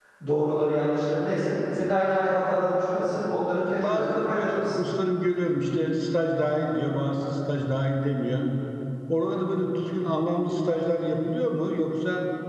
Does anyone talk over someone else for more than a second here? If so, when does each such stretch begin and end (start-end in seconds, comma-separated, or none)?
3.5-4.8